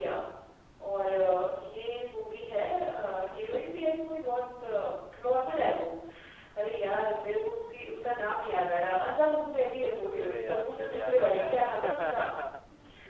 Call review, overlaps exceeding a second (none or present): present